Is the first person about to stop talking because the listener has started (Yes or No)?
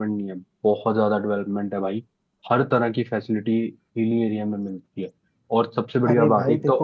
Yes